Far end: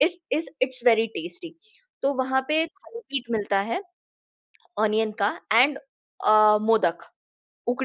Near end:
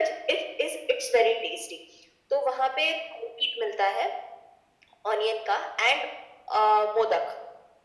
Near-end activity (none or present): none